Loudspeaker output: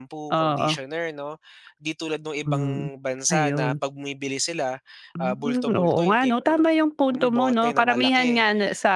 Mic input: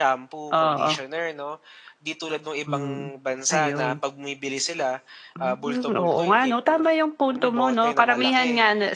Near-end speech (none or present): none